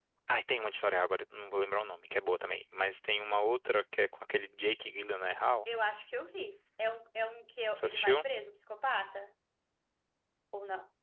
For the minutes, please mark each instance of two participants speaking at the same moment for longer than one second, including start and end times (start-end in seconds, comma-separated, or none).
none